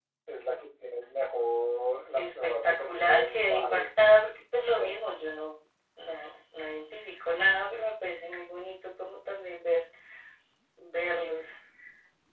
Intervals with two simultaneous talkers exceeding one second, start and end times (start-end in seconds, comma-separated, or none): 2.1-3.9